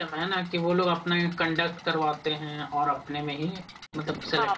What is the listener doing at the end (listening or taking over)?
taking over